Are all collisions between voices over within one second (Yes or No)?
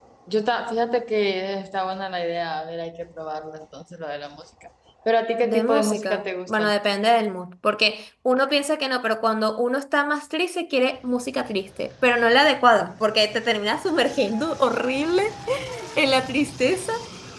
No